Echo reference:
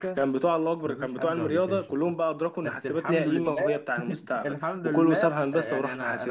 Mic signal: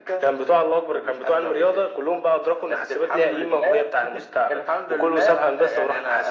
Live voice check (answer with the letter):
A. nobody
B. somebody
A